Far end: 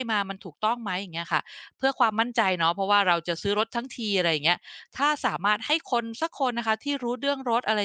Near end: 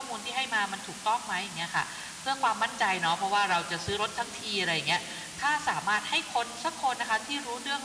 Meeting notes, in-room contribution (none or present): none